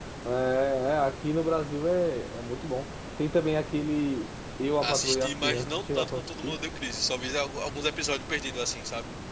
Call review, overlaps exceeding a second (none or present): present